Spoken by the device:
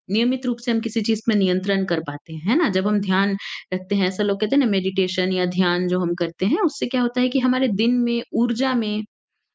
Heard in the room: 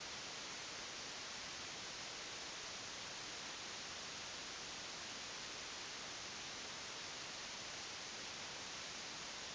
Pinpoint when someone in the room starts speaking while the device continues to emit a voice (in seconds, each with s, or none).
none